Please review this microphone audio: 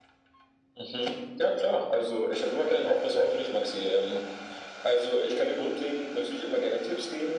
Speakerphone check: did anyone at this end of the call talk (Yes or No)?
No